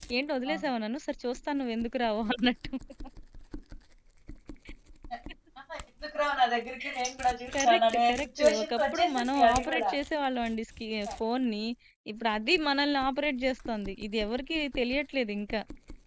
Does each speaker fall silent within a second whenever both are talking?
No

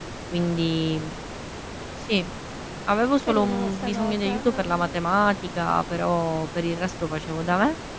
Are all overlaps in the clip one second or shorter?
No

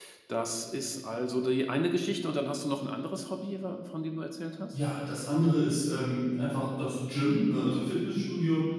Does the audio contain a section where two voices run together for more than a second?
No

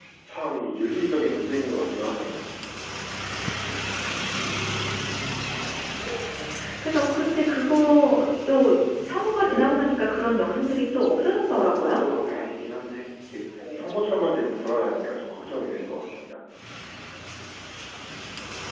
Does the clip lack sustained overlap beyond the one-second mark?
Yes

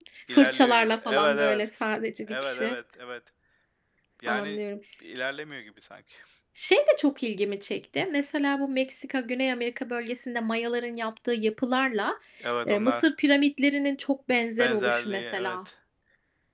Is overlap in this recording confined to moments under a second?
No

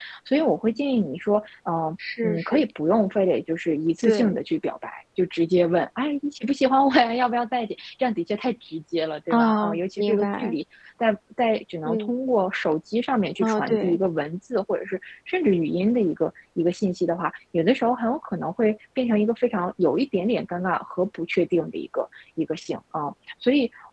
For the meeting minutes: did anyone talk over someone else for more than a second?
Yes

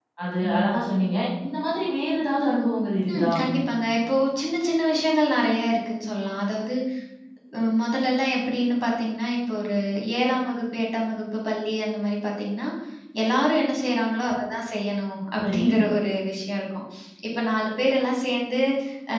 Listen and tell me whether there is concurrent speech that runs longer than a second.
No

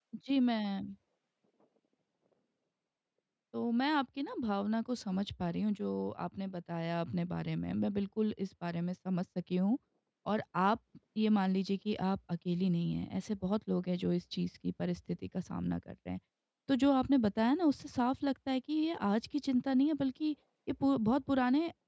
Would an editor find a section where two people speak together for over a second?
No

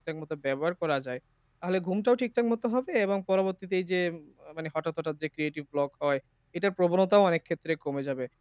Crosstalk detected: No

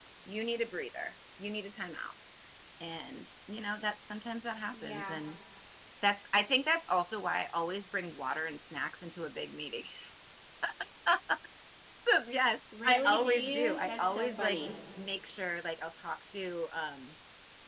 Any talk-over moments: Yes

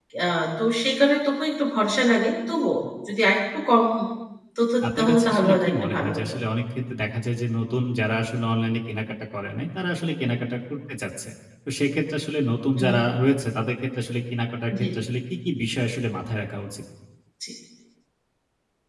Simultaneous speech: Yes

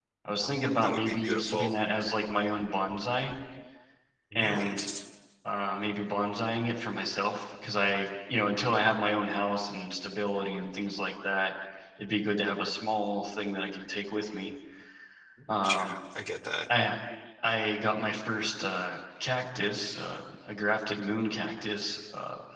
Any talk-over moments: Yes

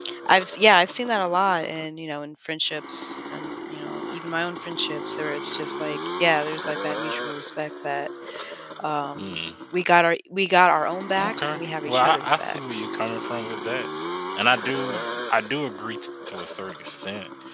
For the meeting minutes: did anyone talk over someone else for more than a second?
Yes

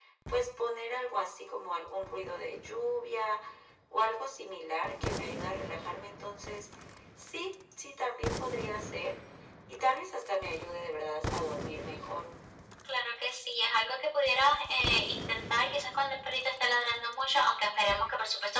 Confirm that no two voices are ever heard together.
Yes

